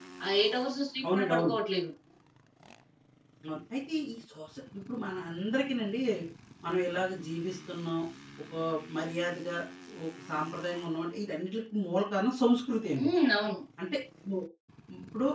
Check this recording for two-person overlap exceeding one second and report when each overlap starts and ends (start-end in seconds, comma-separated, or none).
none